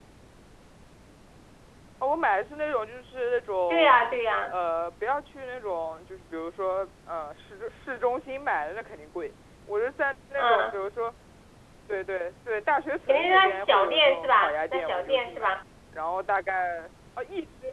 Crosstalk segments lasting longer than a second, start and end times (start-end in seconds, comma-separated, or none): 13.1-15.5